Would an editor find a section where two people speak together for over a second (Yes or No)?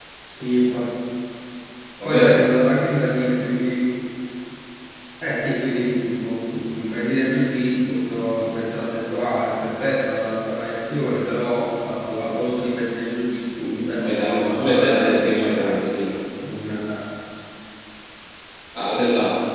Yes